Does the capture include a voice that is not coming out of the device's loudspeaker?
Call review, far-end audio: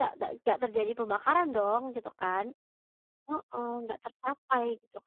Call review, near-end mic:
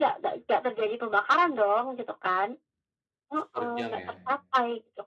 Yes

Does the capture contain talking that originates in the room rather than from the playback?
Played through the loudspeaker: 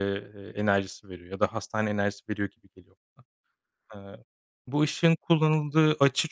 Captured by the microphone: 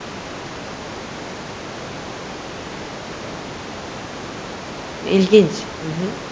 Yes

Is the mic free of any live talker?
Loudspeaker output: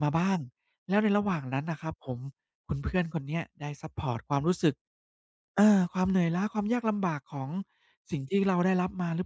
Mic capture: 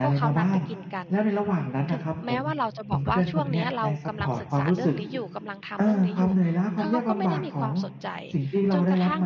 No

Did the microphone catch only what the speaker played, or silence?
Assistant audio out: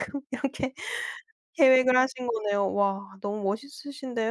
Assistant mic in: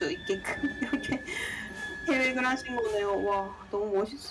Yes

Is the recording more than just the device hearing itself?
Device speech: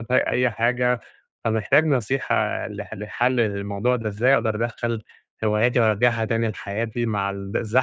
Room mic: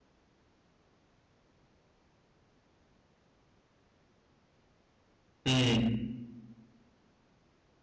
Yes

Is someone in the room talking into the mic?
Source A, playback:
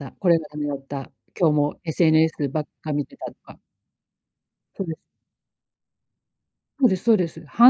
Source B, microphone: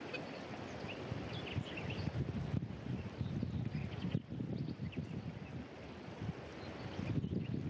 No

